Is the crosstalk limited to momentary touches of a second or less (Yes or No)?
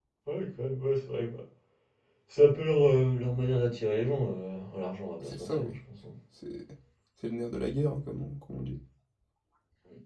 Yes